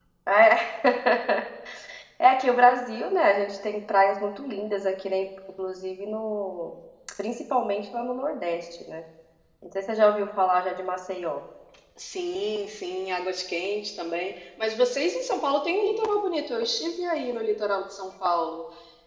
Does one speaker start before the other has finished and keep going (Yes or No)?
No